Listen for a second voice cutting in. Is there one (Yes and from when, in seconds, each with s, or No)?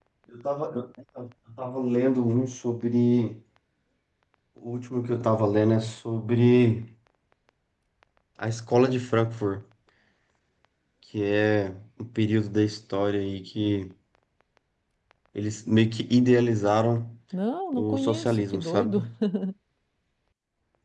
Yes, from 17.7 s